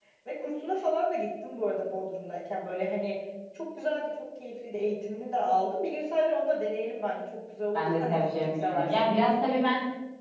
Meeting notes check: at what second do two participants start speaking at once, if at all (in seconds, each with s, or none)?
7.7 s